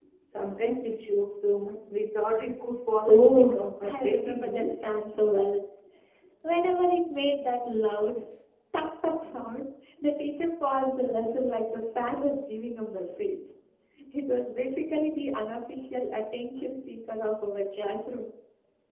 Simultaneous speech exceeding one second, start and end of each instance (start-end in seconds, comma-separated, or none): 3.1-4.9